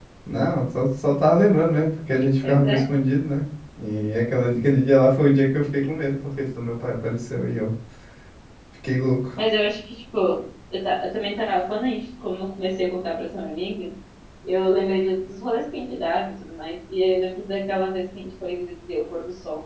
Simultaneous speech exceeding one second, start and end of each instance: none

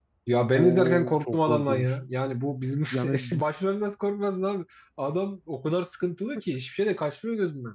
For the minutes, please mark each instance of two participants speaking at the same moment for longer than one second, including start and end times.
0.6-1.9

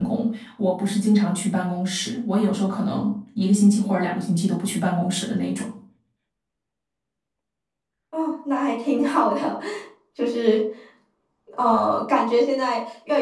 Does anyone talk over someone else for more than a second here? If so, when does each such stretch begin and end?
none

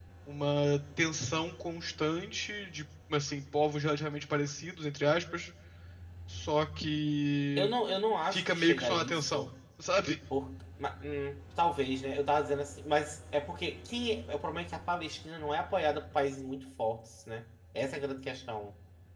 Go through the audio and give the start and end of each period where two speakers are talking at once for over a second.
8.3-9.5

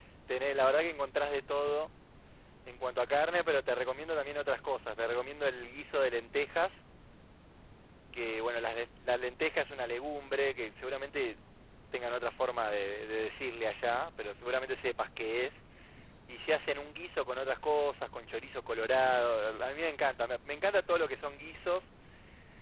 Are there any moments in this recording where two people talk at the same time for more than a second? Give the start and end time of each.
none

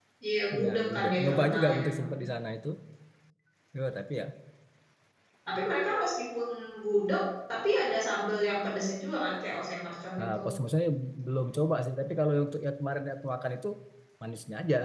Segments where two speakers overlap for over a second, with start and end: 0.6-2.1

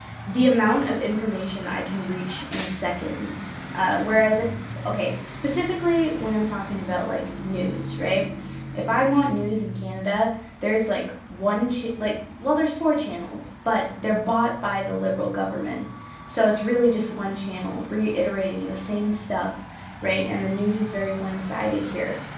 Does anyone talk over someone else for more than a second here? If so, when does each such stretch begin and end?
none

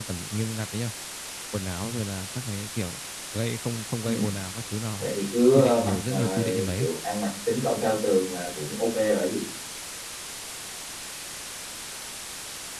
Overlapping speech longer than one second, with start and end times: 5.5-6.9

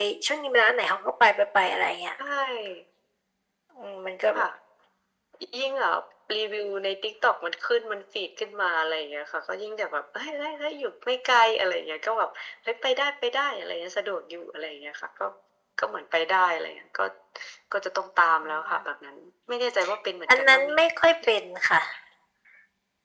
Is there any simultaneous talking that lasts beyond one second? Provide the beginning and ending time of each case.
none

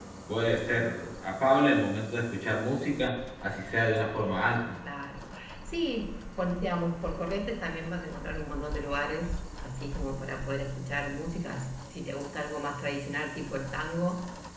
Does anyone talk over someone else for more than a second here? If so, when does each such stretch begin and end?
none

